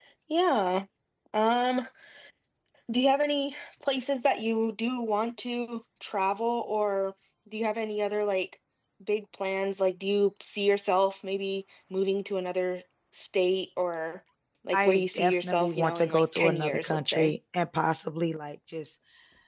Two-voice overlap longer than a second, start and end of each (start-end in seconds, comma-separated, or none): 14.7-17.3